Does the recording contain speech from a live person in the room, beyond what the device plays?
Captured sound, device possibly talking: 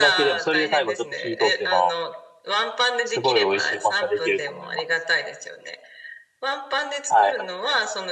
Yes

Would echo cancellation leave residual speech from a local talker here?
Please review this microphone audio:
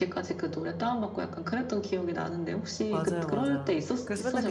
Yes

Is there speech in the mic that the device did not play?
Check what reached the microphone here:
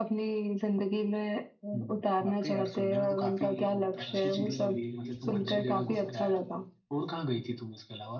Yes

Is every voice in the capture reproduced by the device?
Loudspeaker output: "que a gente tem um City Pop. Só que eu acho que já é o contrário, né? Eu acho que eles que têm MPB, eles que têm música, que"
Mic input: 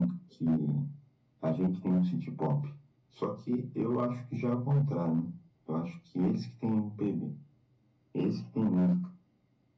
Yes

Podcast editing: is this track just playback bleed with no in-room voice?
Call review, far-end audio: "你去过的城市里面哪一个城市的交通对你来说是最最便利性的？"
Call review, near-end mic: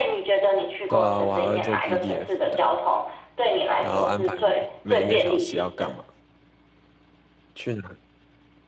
No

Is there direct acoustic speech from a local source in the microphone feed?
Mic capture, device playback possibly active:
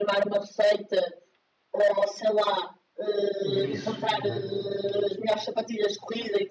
Yes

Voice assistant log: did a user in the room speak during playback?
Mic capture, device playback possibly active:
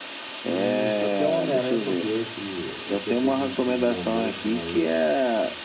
Yes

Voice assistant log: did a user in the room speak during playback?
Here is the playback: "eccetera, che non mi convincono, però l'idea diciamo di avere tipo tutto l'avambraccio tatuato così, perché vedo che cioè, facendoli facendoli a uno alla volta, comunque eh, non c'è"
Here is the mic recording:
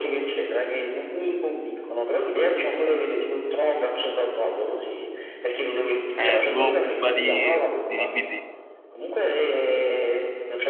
Yes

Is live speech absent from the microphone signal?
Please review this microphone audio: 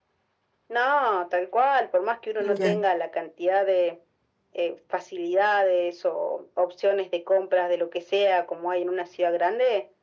No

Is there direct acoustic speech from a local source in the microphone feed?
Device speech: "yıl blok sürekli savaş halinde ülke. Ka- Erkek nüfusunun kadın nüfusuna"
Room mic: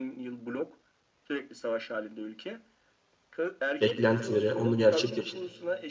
Yes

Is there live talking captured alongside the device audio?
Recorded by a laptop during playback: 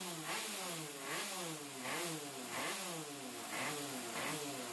No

